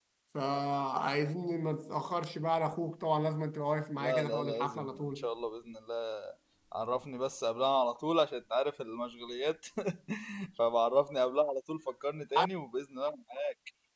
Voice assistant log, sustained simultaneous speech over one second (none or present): present